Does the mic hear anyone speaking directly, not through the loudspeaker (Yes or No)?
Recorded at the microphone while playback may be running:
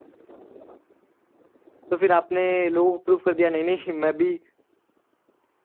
Yes